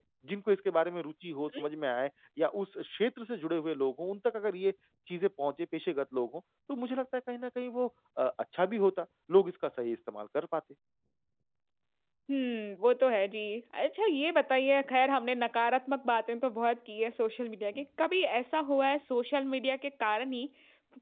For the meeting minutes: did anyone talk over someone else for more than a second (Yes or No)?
No